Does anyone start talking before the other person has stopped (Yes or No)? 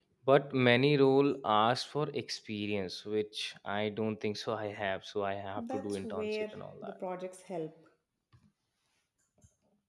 Yes